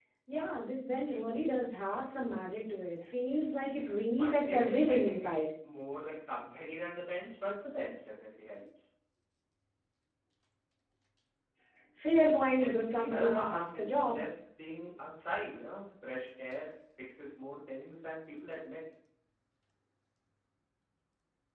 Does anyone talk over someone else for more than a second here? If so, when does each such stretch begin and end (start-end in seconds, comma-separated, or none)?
4.2-5.5, 12.6-14.2